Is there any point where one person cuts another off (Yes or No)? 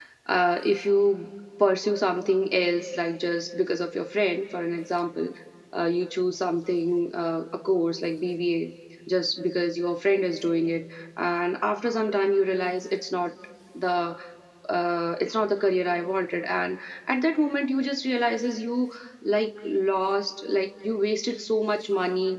No